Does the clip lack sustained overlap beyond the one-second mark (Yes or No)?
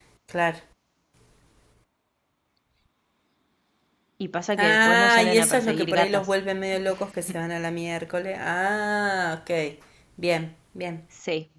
No